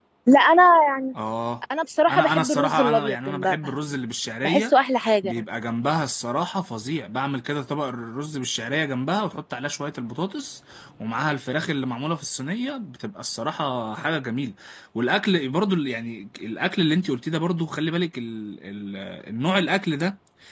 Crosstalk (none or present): present